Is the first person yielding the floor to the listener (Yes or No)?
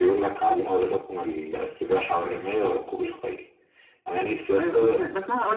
Yes